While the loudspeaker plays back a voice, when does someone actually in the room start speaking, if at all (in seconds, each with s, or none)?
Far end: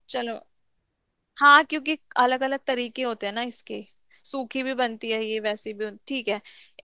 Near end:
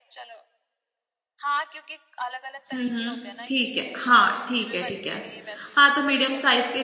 2.7 s